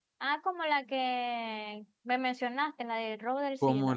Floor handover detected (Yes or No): Yes